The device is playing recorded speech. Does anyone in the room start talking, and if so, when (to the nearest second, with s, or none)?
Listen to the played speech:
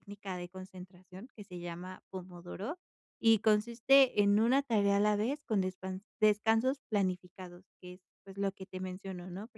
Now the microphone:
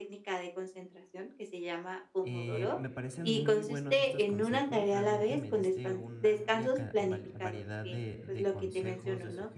2 s